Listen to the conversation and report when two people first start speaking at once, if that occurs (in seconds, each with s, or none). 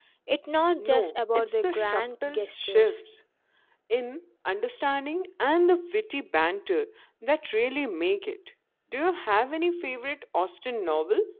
0.8 s